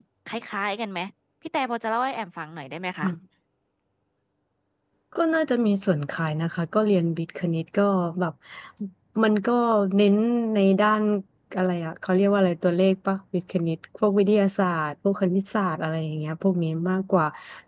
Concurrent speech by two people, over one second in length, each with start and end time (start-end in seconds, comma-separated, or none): none